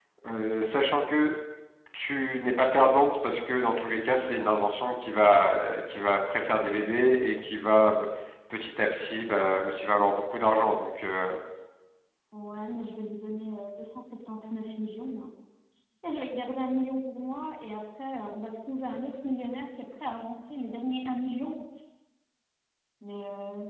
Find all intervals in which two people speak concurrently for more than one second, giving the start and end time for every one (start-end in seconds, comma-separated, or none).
none